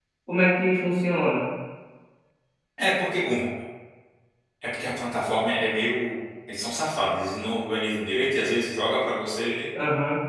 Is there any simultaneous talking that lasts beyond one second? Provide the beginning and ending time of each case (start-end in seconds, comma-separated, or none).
none